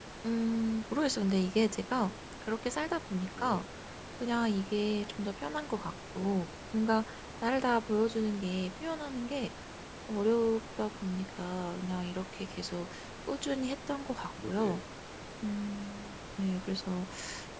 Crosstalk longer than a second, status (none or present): none